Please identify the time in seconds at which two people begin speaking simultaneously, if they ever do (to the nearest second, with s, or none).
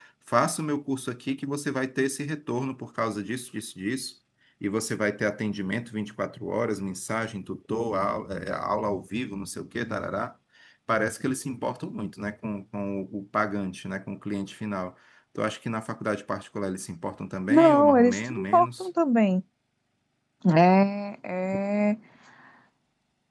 17 s